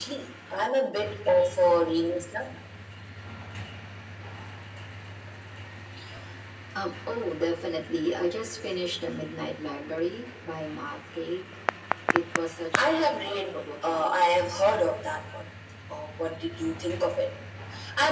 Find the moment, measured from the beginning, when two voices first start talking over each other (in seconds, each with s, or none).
12.8 s